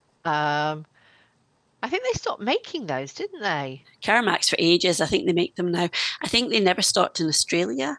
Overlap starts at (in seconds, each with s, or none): none